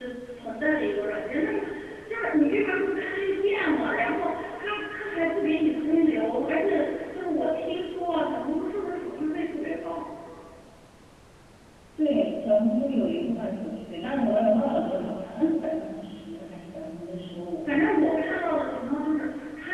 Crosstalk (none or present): none